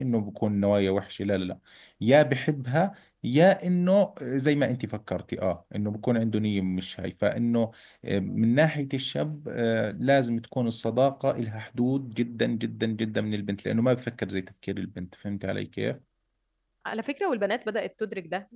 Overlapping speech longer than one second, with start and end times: none

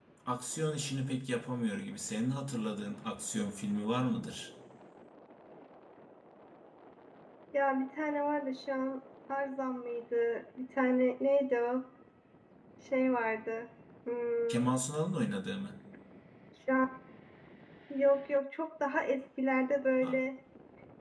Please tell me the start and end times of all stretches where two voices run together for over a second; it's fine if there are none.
none

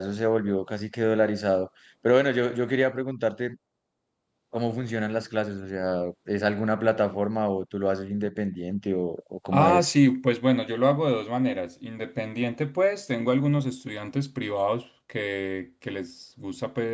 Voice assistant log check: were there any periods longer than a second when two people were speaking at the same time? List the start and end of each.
none

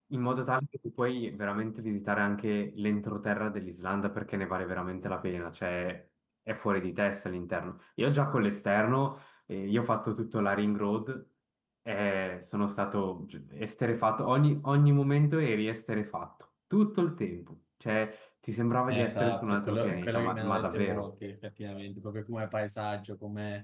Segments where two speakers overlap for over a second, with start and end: 18.9-21.1

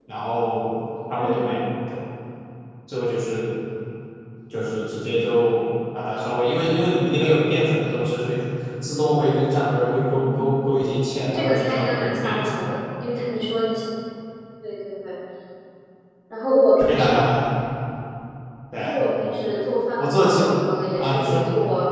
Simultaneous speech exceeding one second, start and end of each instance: 11.2-12.7

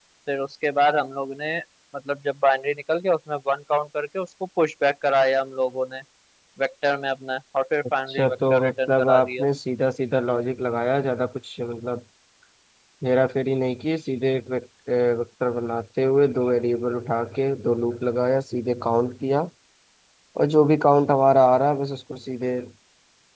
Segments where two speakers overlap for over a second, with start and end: 8.1-9.4

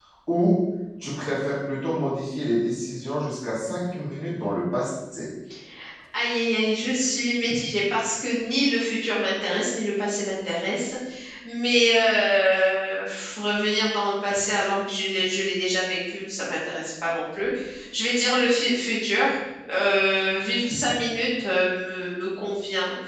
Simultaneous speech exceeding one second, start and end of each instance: none

